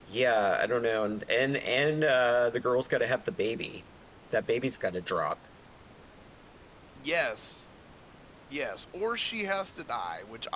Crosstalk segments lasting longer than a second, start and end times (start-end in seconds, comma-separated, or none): none